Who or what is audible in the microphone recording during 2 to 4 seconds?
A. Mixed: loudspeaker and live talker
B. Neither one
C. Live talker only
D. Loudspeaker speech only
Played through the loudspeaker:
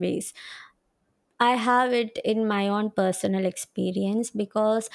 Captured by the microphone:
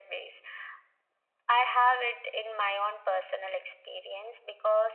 D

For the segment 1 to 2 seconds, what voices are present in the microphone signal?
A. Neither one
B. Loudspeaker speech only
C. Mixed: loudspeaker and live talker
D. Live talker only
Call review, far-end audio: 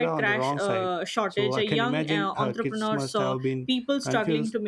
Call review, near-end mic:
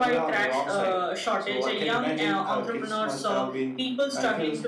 B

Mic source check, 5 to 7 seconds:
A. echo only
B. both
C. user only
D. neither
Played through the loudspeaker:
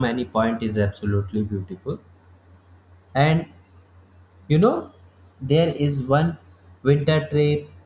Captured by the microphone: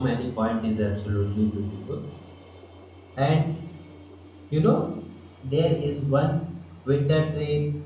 A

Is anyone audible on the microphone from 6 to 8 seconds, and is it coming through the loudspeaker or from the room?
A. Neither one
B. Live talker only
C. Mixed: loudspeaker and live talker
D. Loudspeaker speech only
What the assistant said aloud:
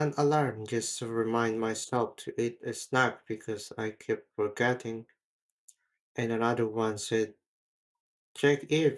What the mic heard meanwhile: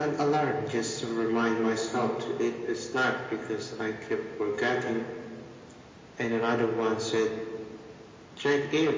D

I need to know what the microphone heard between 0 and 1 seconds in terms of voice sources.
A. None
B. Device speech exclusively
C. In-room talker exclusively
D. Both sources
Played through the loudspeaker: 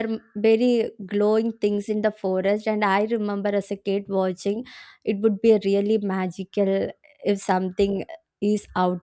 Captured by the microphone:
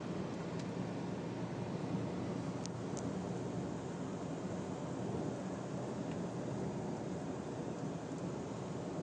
A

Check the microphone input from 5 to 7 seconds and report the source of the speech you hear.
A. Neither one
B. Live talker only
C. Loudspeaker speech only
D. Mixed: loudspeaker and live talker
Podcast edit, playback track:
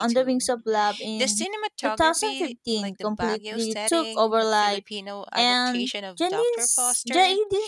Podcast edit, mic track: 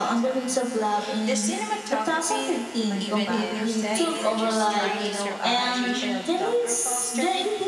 D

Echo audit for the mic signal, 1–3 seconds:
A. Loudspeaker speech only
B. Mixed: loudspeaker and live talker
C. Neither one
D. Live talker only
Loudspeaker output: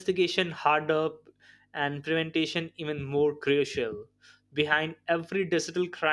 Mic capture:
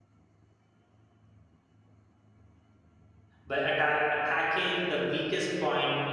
C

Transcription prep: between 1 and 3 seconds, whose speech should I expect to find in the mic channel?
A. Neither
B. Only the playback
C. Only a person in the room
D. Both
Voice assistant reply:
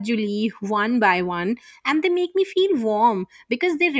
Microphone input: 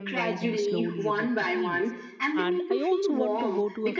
D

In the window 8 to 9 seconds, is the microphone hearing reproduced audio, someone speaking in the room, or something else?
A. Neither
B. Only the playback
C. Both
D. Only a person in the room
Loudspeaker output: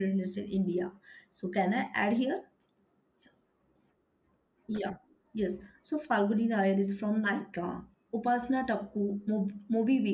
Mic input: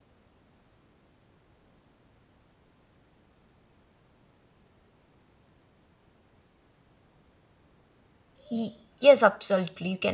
D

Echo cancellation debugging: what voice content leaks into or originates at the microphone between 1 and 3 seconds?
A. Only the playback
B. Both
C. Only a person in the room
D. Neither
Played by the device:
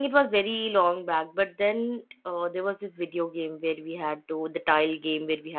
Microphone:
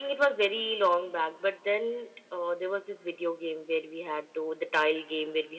A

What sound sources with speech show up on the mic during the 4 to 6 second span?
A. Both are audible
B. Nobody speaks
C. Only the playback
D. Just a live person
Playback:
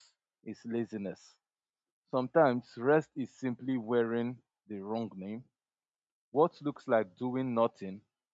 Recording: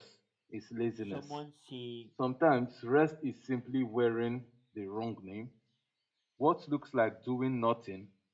C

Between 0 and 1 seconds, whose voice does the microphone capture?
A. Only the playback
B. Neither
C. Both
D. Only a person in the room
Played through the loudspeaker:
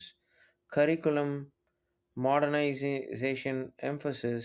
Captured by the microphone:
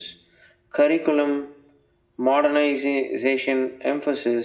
A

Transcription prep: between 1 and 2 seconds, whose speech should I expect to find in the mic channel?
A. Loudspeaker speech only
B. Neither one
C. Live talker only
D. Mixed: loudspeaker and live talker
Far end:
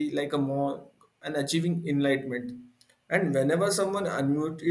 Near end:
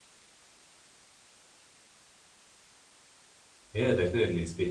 B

